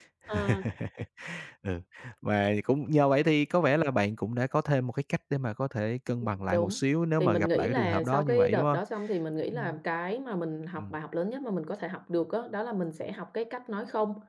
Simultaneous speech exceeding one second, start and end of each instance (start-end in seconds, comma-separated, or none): 7.2-8.8